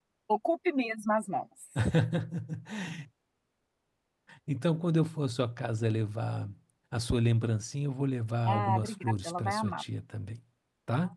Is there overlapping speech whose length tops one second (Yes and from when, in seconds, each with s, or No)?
Yes, from 8.5 s